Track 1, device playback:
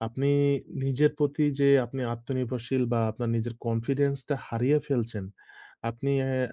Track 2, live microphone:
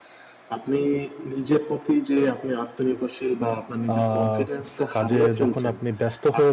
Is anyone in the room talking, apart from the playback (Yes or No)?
Yes